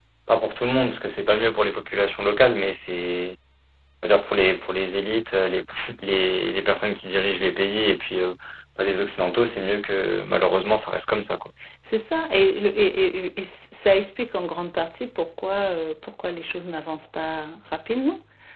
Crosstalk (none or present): none